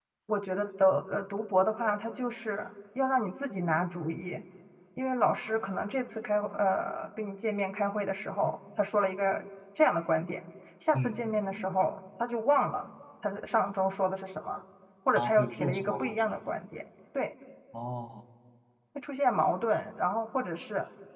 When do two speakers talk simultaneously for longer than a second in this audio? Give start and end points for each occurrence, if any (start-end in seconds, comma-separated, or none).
15.2-16.4